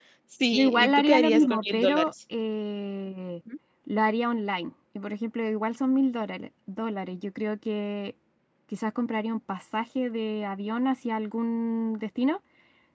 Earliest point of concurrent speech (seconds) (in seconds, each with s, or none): 0.5 s